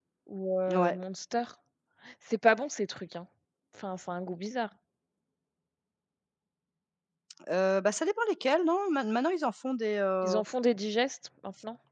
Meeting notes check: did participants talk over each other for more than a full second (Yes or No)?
No